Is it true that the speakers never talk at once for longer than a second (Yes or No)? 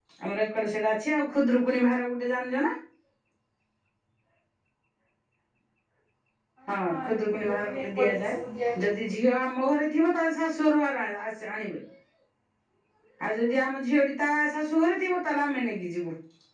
No